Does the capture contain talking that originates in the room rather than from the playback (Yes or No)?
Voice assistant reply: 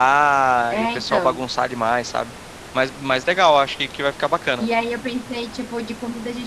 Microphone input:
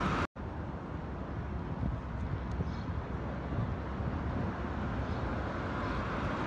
No